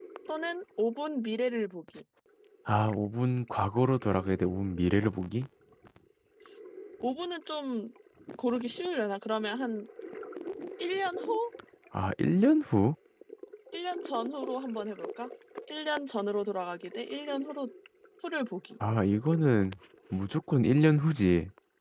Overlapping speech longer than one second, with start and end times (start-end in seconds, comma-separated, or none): none